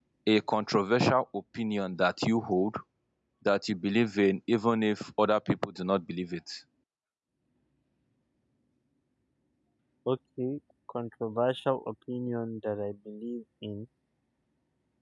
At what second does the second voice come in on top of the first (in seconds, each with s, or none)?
none